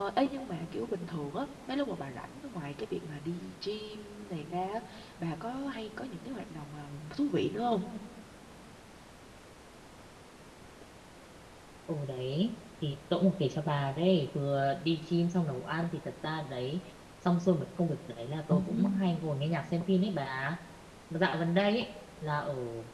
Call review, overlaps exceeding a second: none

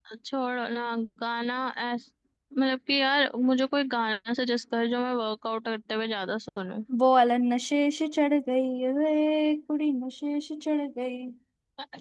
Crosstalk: none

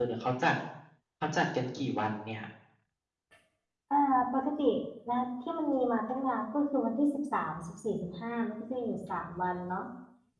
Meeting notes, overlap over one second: none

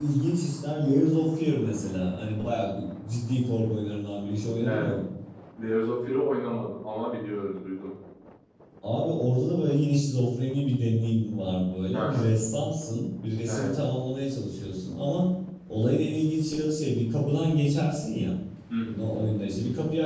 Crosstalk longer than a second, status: none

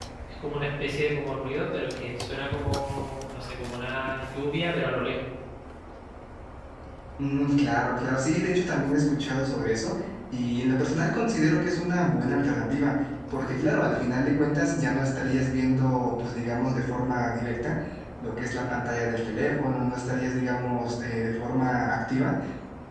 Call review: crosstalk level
none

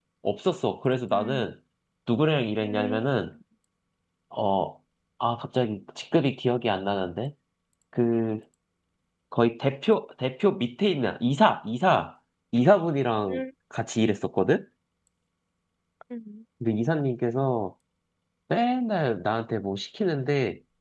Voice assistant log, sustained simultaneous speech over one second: none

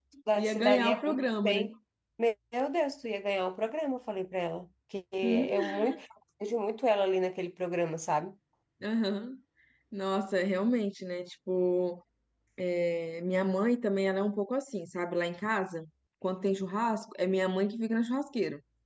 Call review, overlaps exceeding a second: present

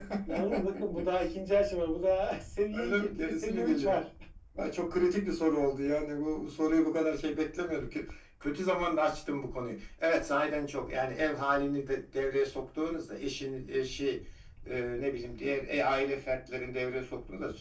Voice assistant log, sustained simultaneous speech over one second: present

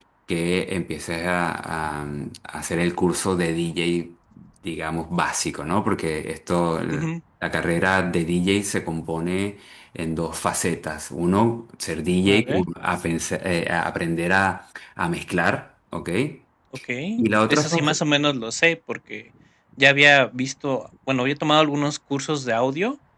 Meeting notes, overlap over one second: none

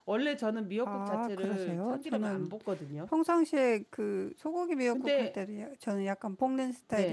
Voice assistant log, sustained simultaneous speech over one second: present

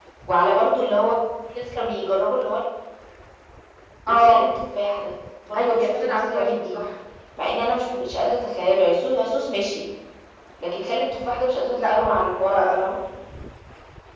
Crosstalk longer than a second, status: present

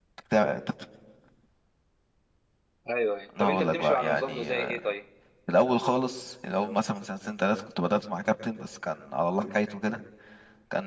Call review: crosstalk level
present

